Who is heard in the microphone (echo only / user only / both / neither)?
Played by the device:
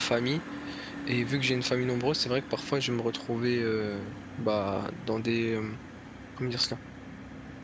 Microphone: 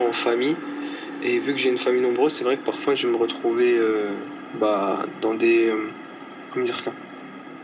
echo only